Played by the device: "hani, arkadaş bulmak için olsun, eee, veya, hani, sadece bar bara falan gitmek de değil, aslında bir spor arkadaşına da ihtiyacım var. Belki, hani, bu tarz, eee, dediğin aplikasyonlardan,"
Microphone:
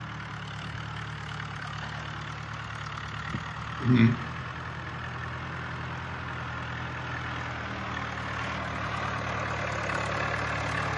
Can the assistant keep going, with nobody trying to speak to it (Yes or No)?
No